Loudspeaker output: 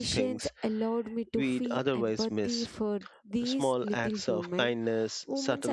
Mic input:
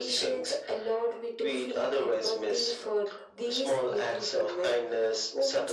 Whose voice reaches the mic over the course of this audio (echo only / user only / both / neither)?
echo only